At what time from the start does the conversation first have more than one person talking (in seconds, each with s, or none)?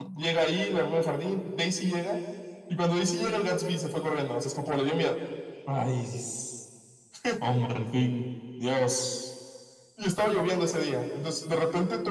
none